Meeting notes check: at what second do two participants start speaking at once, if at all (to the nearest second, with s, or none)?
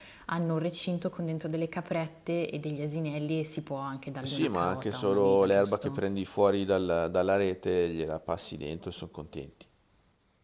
4 s